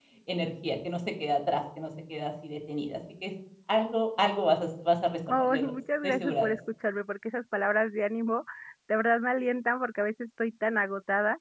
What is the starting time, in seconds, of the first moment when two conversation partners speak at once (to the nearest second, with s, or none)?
5 s